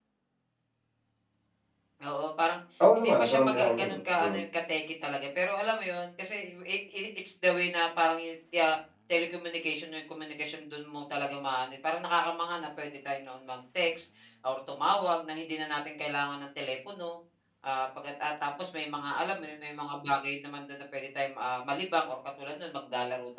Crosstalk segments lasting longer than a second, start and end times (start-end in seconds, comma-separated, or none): 3.0-4.4